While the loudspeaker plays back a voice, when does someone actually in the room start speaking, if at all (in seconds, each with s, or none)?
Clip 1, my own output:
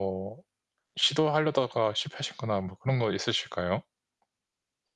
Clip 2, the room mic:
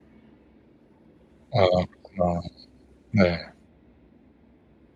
1.5 s